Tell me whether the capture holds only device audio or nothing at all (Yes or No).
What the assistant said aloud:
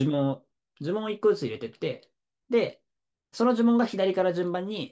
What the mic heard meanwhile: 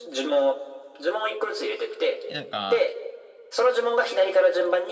No